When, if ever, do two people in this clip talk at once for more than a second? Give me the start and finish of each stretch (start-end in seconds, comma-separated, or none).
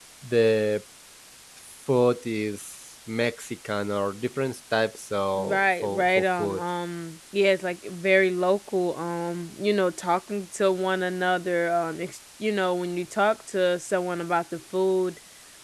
5.3-6.6